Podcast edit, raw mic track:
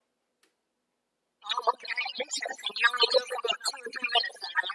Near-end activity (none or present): none